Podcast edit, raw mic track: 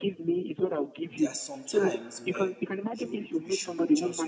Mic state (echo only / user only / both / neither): both